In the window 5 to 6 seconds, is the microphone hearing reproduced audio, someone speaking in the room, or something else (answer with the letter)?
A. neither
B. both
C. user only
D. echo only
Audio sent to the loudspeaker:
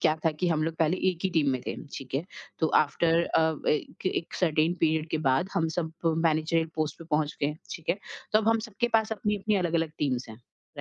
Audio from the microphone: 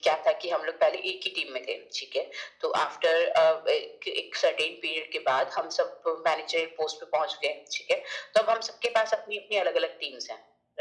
D